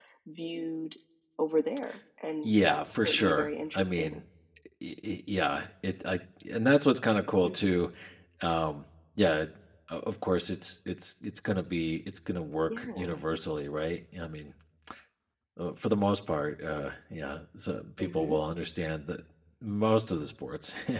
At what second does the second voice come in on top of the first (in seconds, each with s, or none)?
2.4 s